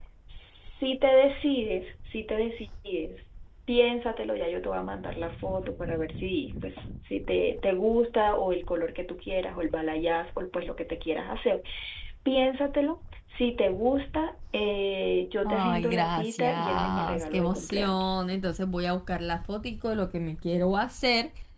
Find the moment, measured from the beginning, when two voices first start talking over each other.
15 s

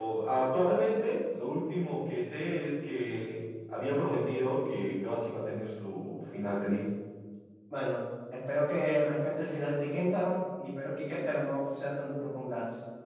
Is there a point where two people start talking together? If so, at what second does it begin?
none

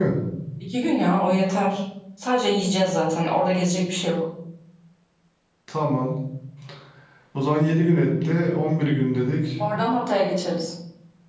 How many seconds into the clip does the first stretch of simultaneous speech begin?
none

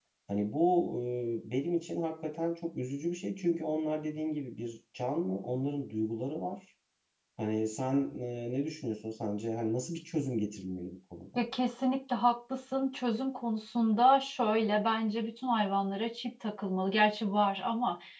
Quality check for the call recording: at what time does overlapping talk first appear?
none

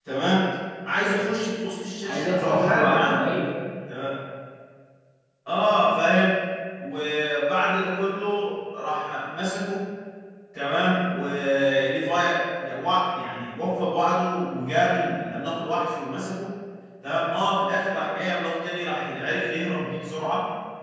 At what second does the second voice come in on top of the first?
2 s

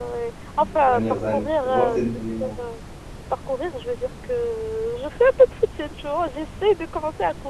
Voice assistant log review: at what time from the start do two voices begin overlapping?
1 s

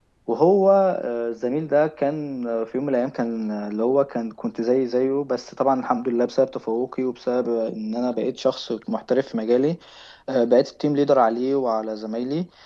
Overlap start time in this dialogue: none

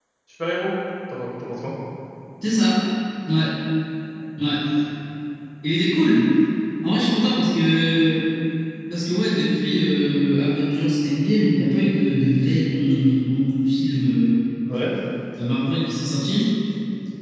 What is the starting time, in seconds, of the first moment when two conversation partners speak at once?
none

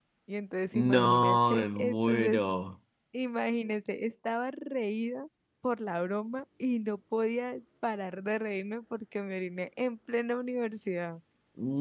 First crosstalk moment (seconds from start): 1 s

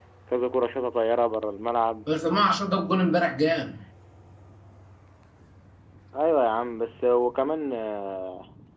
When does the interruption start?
none

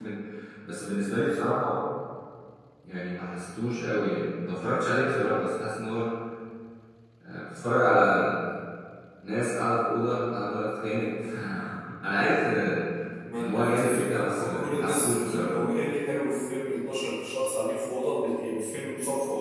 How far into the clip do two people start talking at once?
13 s

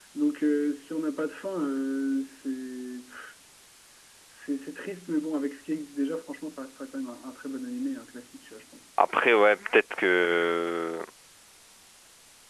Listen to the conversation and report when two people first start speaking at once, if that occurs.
none

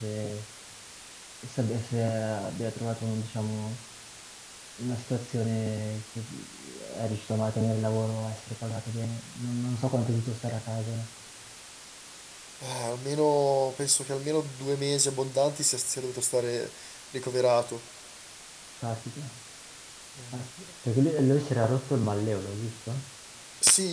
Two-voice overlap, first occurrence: none

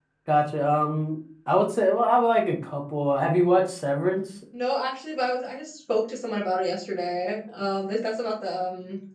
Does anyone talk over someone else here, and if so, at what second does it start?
none

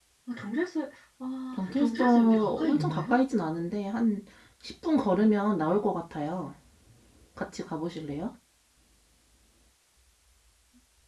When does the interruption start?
2 s

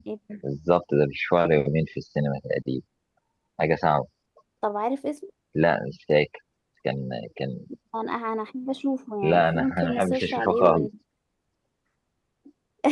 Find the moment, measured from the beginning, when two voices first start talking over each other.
9 s

